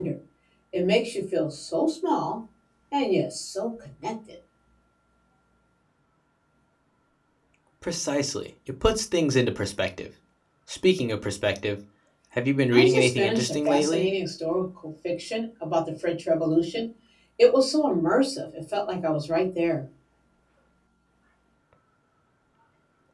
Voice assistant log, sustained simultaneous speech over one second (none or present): present